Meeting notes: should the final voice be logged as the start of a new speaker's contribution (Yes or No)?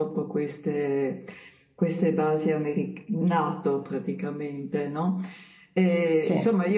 No